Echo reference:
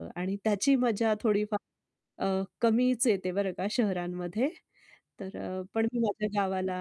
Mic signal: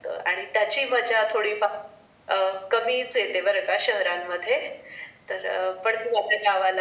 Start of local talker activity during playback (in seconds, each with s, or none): none